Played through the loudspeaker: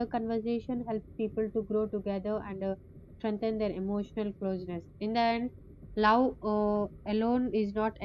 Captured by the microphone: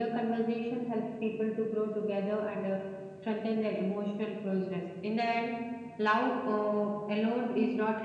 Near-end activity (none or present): none